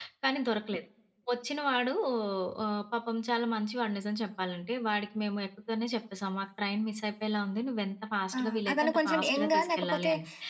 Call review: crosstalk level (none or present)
present